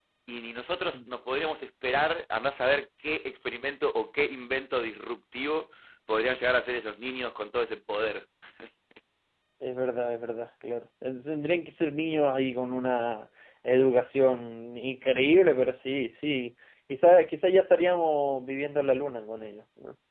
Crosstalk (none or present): none